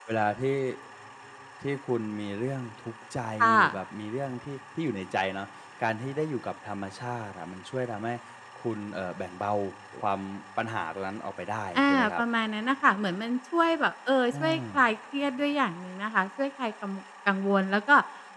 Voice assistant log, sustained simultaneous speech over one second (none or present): none